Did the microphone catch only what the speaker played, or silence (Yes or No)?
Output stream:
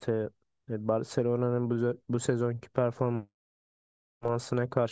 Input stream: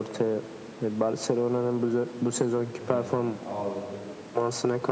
No